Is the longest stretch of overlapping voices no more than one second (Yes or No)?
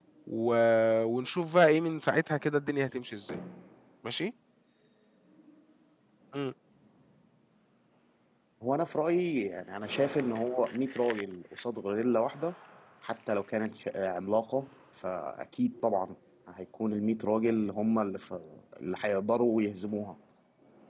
Yes